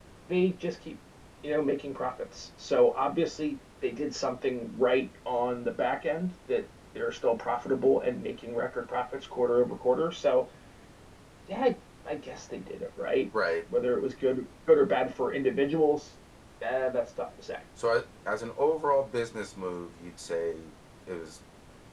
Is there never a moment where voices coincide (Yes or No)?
Yes